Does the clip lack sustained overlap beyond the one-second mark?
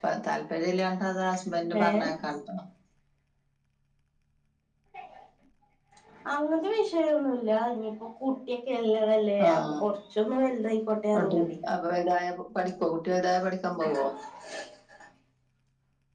Yes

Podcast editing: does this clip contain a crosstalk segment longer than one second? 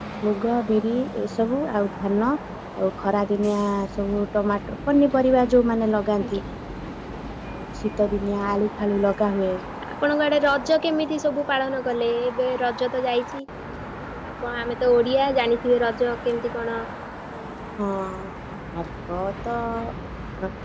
No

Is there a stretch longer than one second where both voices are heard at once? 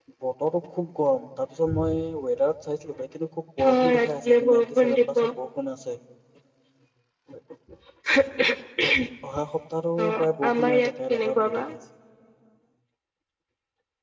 Yes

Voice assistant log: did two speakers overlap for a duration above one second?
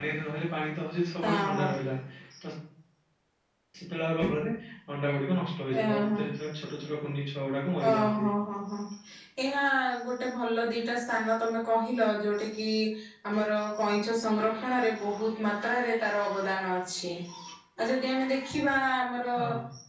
No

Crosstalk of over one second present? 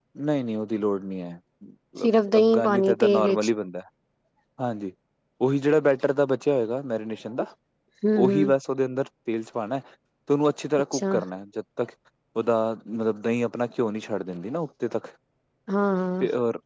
Yes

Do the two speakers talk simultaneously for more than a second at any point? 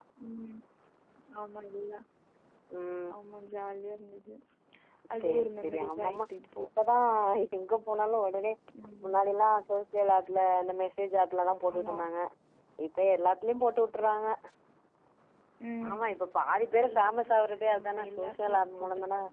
Yes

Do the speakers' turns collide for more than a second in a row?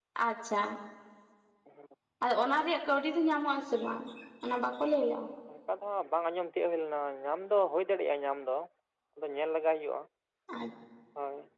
No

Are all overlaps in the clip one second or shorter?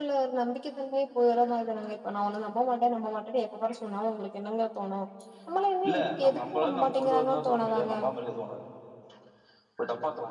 No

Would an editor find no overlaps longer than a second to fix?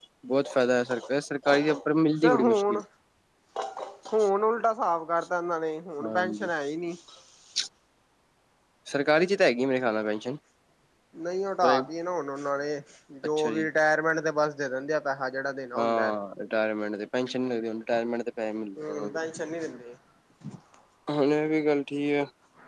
Yes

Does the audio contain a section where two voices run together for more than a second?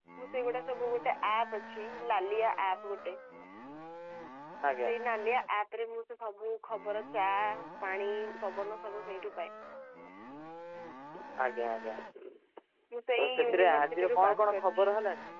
Yes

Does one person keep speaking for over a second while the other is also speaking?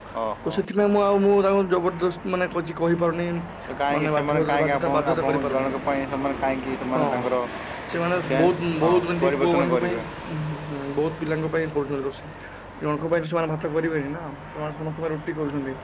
Yes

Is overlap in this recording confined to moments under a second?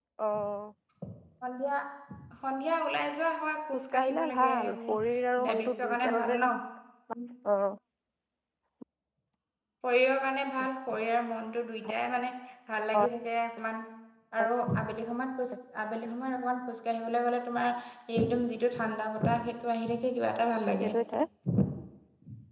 No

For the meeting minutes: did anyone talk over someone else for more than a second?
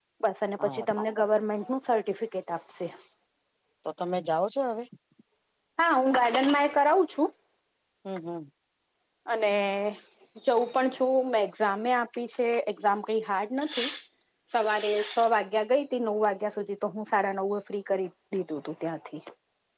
No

